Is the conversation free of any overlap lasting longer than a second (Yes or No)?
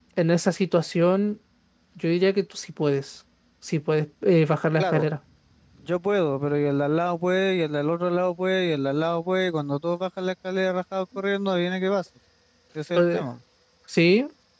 Yes